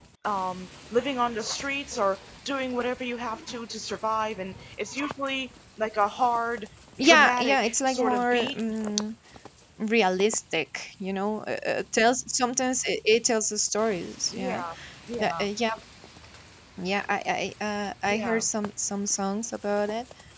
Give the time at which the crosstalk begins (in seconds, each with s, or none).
7.0 s